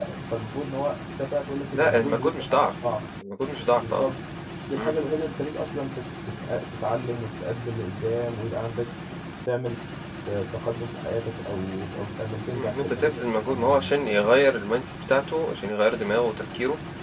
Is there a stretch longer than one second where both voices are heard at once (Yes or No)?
Yes